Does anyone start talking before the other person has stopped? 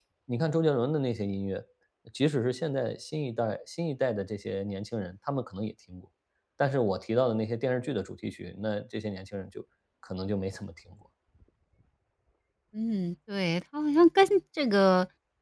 No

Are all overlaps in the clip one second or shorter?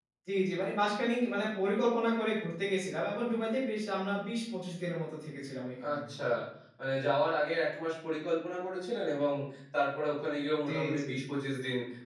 Yes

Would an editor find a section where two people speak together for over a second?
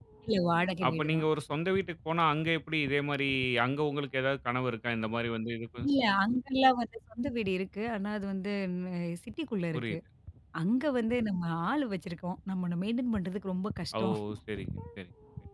No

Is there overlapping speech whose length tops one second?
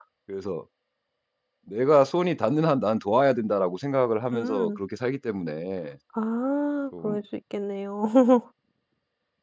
No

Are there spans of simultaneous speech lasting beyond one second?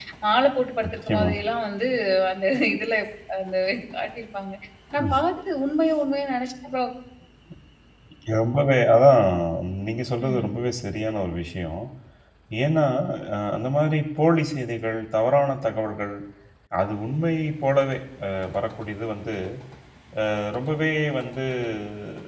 No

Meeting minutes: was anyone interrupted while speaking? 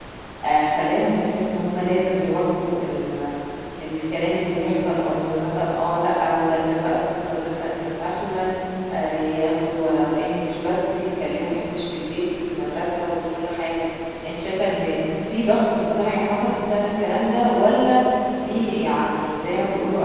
No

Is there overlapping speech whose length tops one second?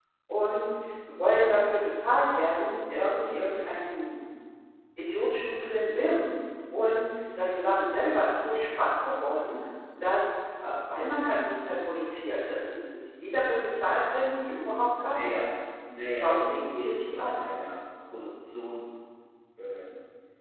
Yes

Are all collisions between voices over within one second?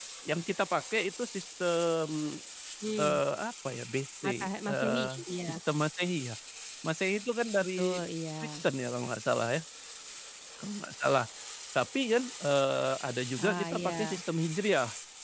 No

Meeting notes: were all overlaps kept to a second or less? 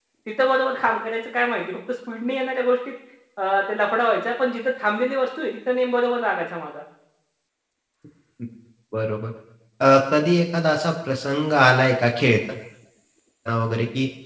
Yes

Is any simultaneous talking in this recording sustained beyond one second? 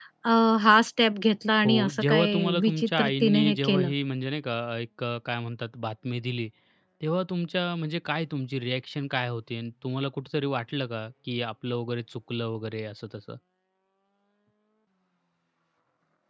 Yes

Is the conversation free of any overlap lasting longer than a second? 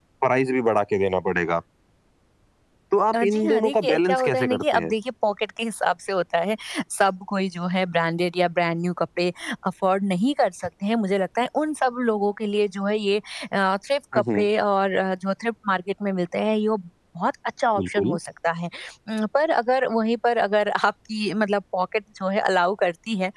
No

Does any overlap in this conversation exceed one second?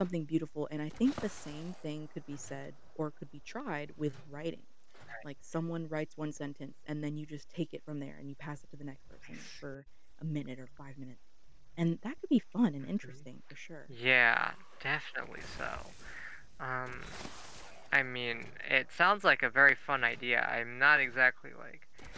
No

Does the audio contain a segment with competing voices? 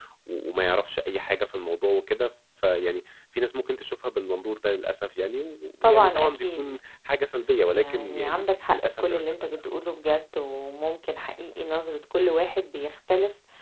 Yes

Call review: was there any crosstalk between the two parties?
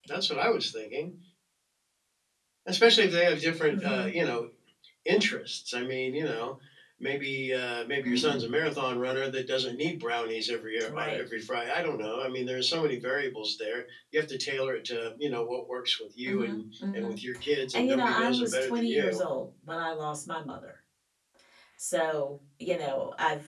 Yes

